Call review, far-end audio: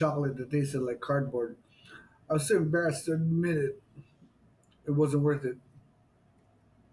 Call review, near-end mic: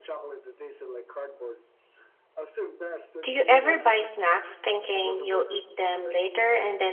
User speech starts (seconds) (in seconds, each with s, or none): 3.2 s